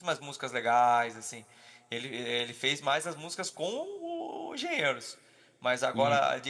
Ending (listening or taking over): listening